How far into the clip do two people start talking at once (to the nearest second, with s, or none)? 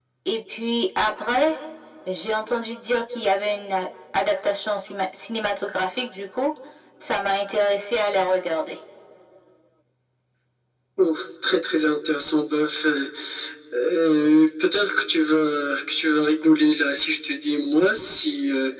none